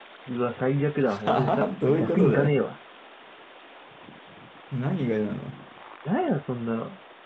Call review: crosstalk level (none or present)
present